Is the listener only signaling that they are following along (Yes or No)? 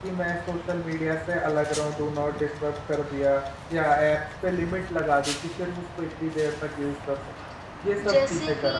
No